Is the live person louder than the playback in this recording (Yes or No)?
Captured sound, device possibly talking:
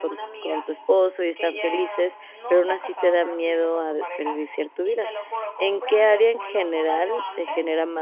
Yes